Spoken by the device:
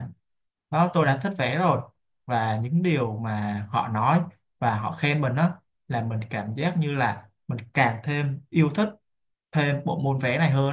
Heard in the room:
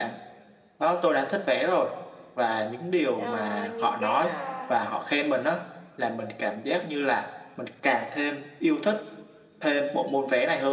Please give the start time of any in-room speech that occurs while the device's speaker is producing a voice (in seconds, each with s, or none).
3.2 s